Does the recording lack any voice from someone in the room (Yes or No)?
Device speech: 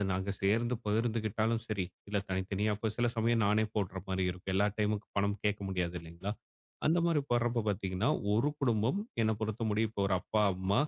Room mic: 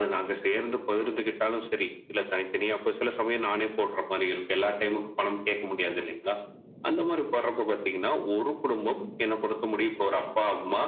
Yes